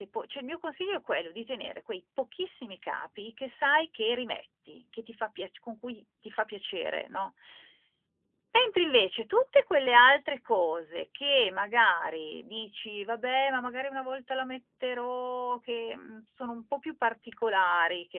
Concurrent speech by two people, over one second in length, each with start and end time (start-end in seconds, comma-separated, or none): none